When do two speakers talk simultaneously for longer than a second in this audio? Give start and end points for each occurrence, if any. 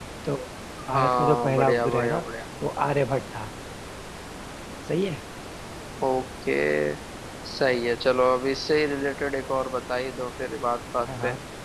0.9-2.2

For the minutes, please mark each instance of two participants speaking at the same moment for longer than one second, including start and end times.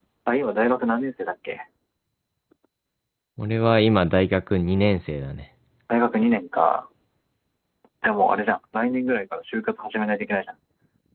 none

